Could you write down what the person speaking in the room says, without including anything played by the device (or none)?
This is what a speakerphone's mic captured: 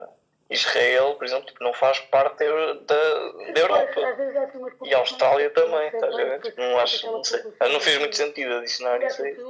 none